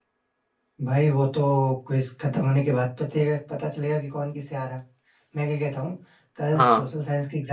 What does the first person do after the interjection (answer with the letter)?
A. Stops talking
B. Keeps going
B